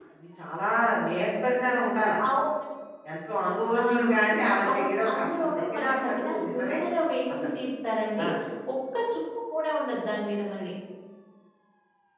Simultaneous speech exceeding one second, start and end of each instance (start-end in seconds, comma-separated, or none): 4.7-6.8